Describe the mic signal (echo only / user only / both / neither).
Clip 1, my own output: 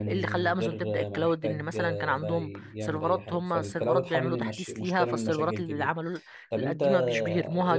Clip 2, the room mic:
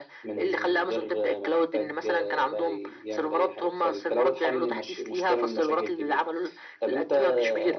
echo only